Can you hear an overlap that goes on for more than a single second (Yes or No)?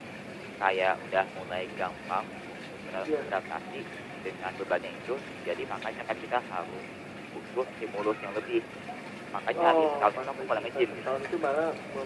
Yes